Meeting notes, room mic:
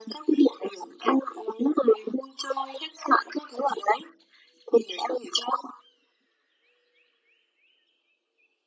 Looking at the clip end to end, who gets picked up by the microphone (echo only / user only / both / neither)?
echo only